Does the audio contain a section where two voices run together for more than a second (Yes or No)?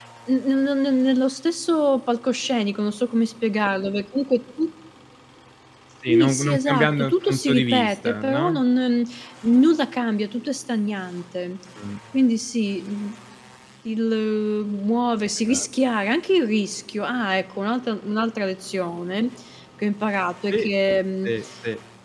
Yes